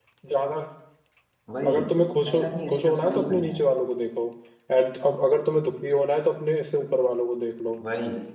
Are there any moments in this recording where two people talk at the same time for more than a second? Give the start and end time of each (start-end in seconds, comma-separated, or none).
2.3-3.6